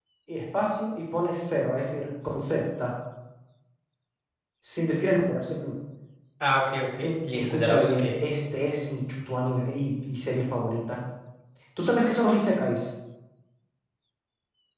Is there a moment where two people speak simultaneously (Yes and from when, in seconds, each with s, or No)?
Yes, from 7.0 s